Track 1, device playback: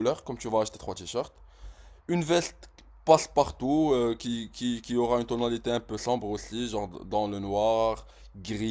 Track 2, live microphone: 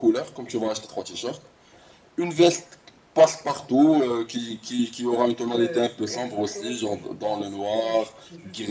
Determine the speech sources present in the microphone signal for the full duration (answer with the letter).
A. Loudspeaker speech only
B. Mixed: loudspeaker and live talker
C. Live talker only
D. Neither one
B